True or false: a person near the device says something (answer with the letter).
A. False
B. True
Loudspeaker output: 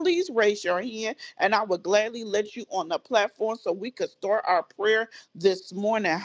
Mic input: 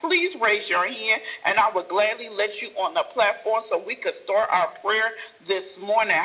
A